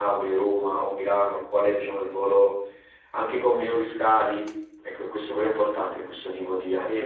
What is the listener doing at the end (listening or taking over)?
taking over